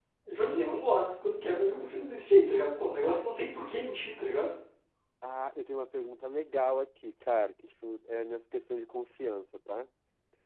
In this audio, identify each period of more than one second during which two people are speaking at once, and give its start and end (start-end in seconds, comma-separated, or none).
none